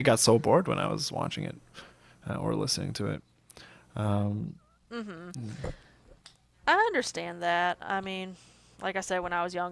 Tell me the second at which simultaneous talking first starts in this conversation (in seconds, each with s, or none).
none